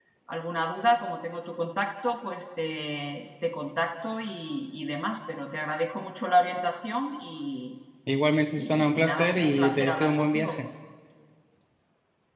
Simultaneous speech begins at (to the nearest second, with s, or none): 9 s